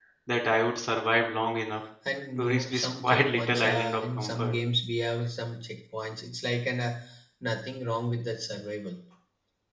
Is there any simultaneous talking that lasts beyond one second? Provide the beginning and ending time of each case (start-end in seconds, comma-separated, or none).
2.4-4.5